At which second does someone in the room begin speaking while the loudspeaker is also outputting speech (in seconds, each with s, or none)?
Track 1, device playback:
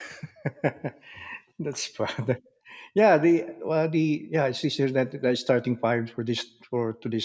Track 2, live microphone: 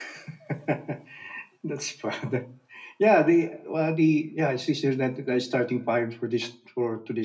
none